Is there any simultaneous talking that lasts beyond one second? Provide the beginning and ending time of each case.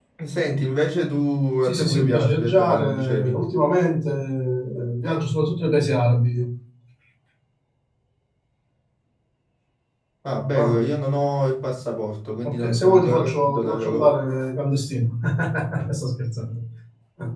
1.6-3.4, 12.4-14.1

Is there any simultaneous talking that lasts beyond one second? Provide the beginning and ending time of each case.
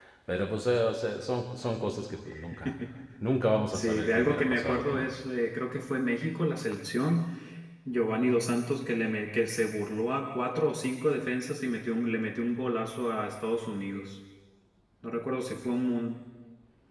3.7-5.1

